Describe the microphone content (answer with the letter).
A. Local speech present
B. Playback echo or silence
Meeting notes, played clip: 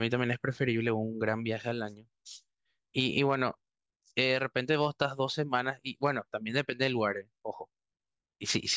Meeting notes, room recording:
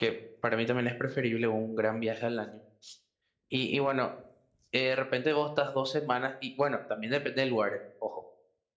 B